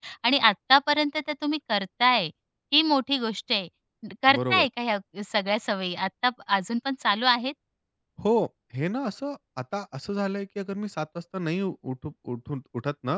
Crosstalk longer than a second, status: none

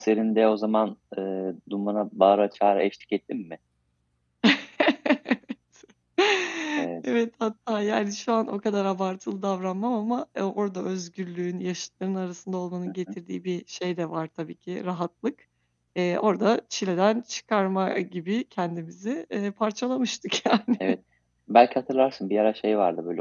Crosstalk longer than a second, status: none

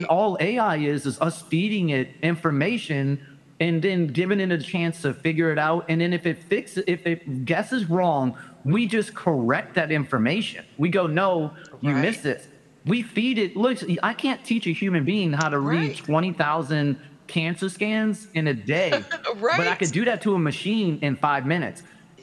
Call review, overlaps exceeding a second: none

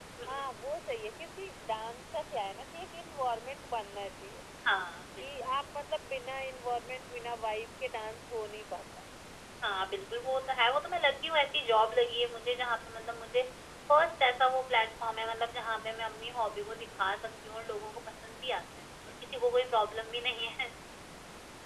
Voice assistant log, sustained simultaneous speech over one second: none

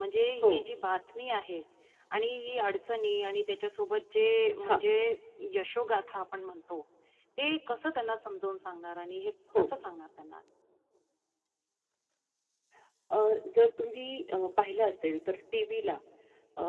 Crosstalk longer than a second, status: none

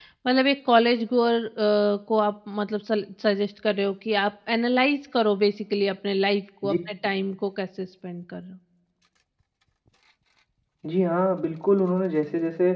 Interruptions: none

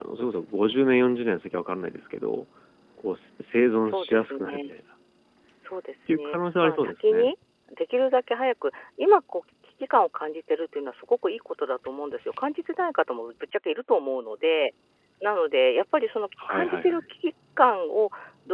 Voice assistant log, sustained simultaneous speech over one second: present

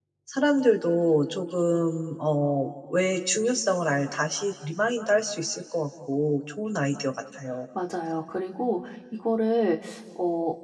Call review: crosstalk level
none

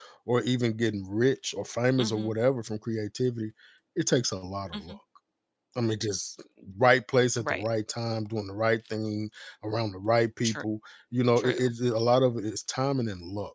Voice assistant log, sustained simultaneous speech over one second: none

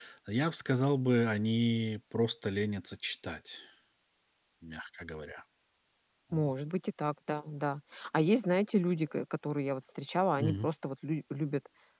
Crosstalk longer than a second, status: none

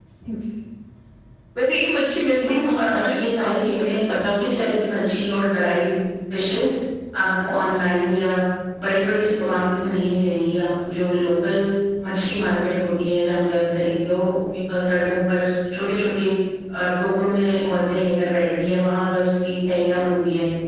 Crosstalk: present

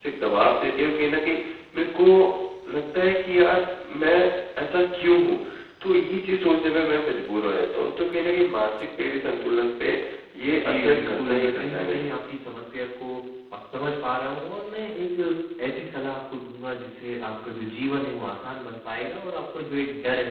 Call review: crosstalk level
present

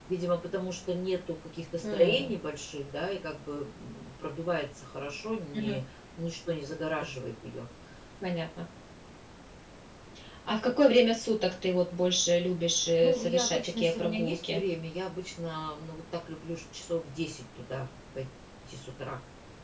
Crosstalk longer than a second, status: present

